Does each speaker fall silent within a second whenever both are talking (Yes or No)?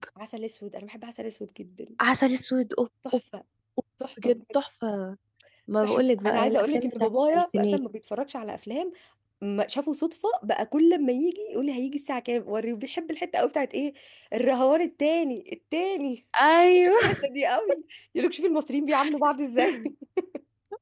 No